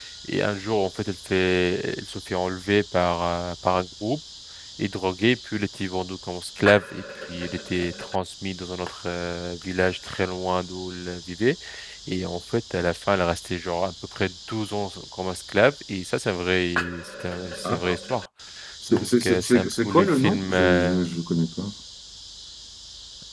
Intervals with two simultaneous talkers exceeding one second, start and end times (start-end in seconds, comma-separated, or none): 18.9-21.1